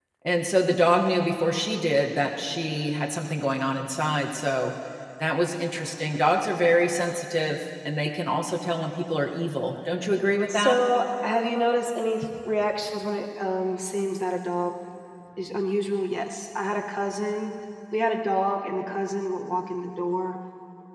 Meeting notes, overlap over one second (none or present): none